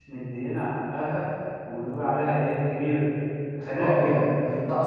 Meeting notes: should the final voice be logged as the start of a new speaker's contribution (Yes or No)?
Yes